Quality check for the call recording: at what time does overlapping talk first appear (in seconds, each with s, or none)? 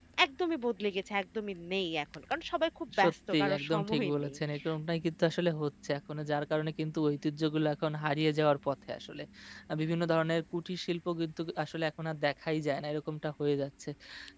2.9 s